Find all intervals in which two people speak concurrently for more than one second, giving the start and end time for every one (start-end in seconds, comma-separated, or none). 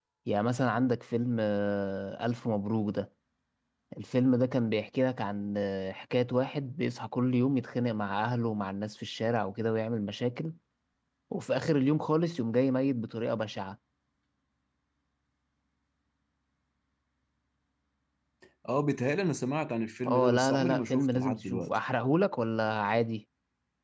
20.1-21.7